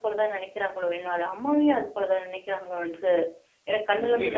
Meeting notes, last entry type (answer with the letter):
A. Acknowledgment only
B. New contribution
B